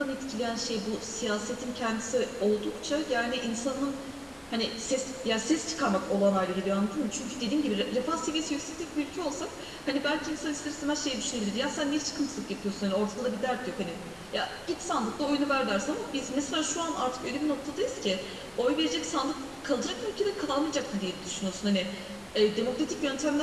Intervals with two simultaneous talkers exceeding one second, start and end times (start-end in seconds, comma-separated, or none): none